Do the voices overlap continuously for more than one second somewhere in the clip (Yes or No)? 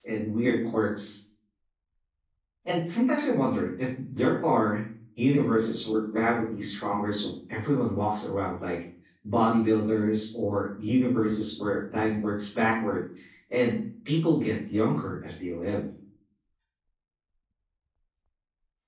No